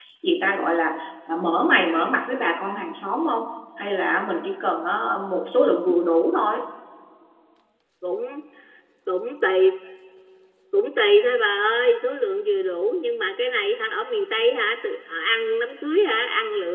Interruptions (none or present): none